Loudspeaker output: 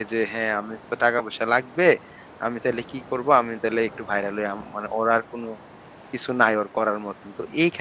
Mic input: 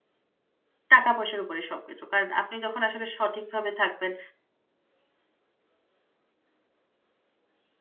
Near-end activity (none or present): present